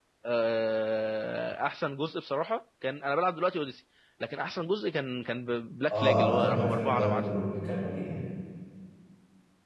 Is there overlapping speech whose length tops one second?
Yes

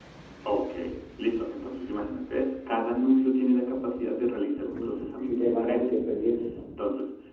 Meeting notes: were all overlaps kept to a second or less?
No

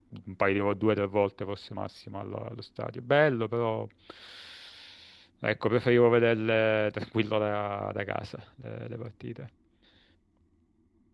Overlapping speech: No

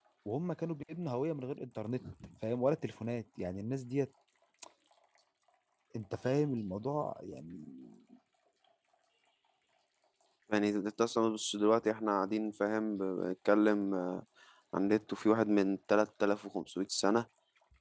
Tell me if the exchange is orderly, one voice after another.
Yes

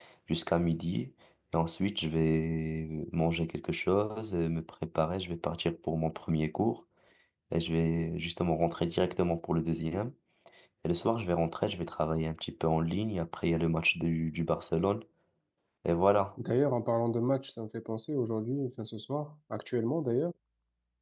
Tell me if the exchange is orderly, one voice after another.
Yes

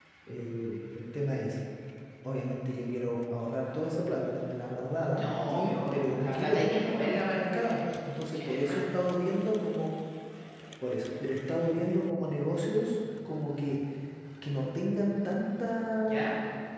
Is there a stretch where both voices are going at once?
Yes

